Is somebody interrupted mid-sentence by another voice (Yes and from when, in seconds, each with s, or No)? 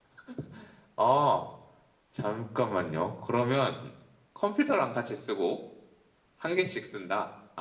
No